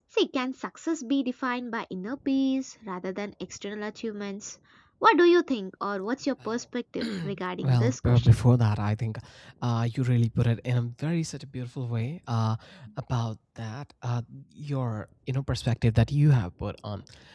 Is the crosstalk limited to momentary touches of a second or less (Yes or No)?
No